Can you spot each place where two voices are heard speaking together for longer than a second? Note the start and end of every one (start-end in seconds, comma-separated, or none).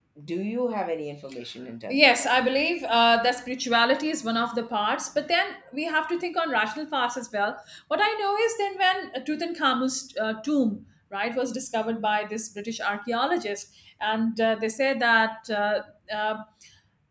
none